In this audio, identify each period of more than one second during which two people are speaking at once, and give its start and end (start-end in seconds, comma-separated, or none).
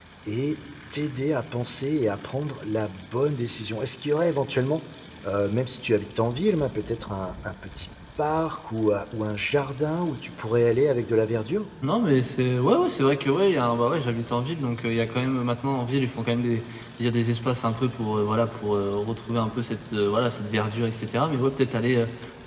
none